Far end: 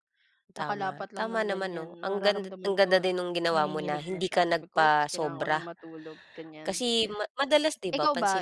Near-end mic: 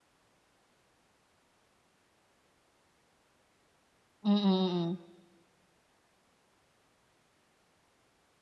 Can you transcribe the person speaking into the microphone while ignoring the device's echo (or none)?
Mm. Mm.